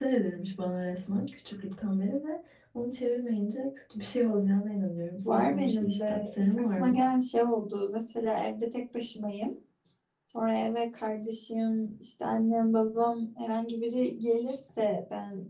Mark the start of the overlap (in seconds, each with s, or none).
5.2 s